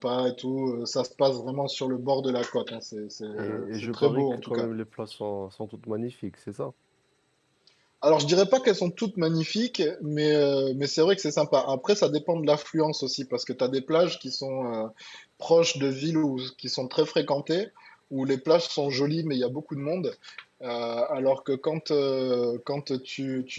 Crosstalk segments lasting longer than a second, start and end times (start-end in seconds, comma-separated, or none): 3.3-4.7